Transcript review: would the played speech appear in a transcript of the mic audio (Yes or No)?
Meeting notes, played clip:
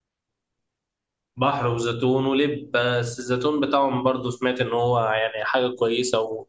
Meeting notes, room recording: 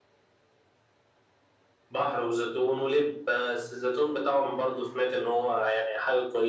Yes